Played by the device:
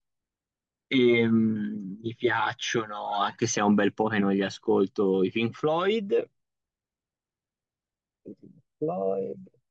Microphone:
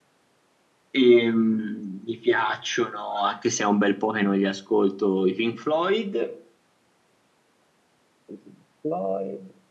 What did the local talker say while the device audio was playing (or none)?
none